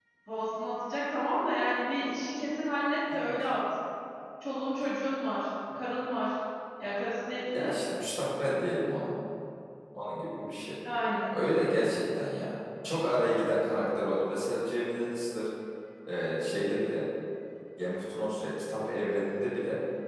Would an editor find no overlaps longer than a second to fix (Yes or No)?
Yes